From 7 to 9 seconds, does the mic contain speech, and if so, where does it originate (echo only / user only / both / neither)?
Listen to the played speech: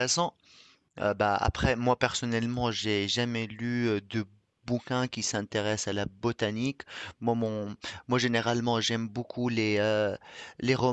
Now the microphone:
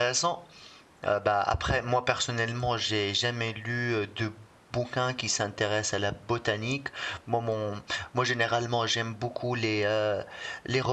echo only